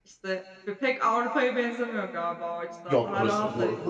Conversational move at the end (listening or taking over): taking over